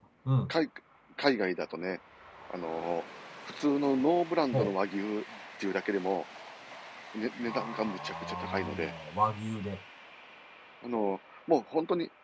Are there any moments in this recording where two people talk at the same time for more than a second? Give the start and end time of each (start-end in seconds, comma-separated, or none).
7.5-8.9